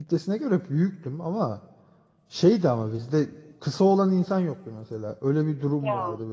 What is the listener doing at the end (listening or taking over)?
listening